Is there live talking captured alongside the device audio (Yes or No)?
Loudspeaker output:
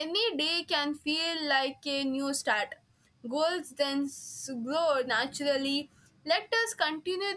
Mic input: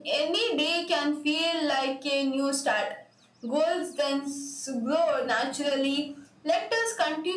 No